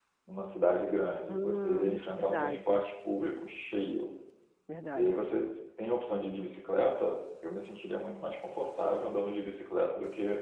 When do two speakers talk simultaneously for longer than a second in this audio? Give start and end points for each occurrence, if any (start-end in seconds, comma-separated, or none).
1.3-2.8